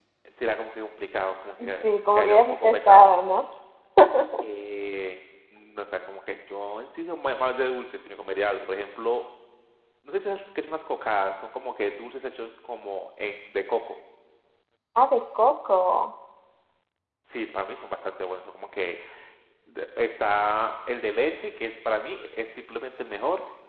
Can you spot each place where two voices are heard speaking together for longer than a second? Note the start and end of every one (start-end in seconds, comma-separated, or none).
1.7-3.1